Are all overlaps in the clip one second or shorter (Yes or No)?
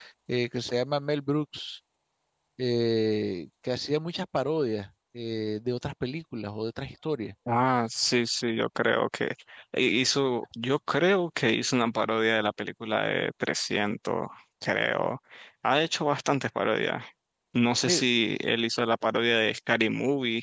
Yes